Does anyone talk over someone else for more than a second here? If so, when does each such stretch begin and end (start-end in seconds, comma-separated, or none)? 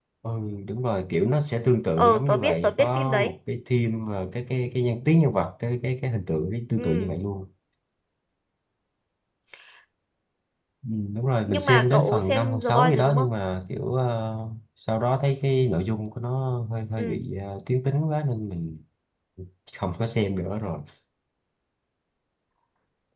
2.0-3.3, 11.5-13.3